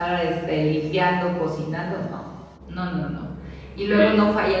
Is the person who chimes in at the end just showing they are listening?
Yes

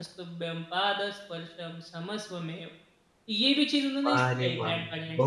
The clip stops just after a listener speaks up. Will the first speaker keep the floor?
No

